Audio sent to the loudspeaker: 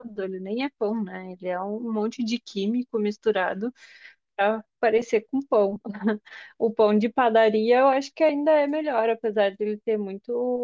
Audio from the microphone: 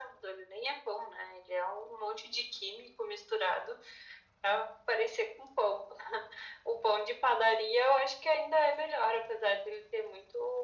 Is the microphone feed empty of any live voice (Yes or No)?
Yes